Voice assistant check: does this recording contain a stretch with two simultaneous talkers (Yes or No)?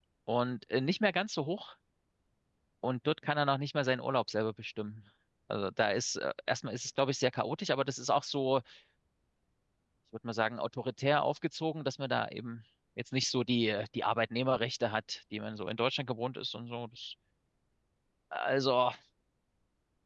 No